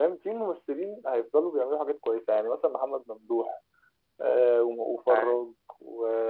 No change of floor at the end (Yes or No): Yes